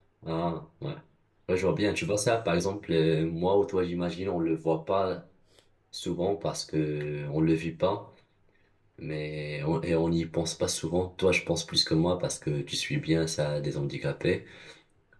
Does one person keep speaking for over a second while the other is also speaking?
No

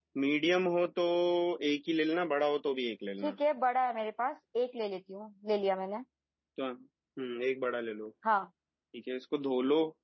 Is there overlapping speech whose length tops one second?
No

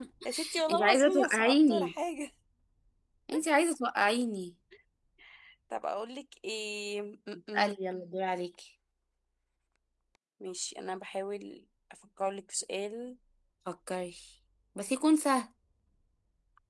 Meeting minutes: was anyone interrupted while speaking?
Yes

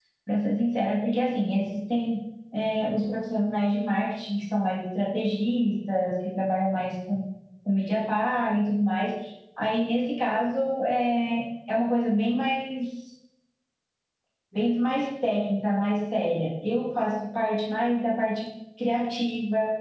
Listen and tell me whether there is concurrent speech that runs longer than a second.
No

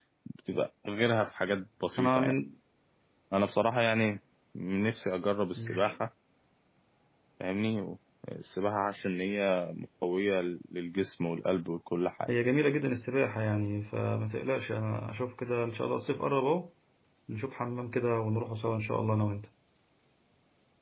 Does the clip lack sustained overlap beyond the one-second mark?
Yes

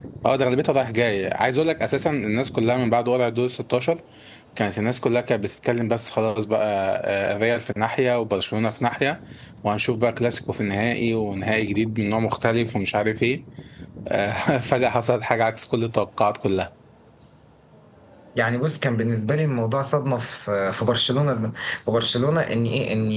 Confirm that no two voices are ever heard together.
Yes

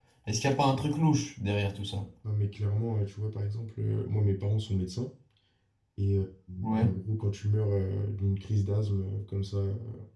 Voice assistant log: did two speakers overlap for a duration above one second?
No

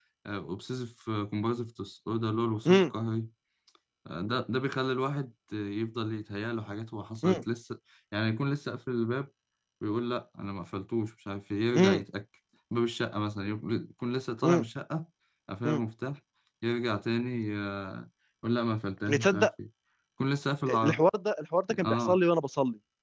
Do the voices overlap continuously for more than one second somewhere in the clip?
No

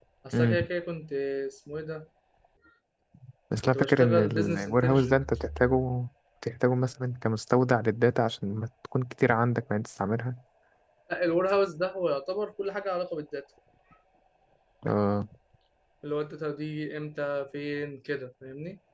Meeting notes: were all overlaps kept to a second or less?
No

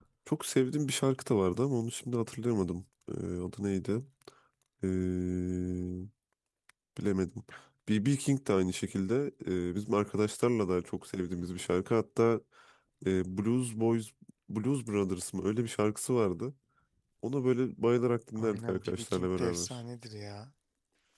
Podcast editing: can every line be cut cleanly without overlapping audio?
No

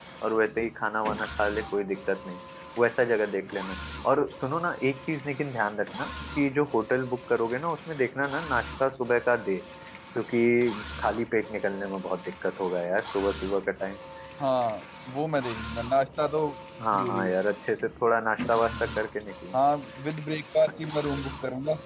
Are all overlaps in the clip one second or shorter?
Yes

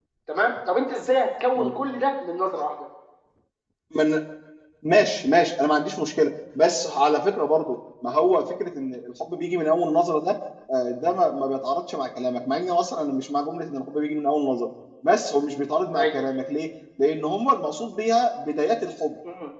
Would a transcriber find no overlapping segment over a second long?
Yes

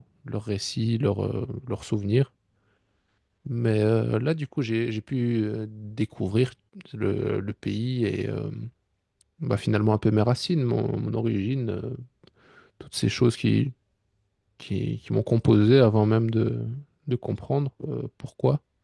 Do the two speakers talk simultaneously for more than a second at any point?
No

